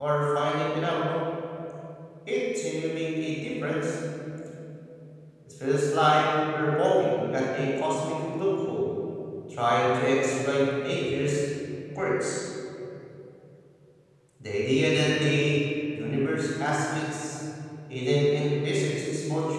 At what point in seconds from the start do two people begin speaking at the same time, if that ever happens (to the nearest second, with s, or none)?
none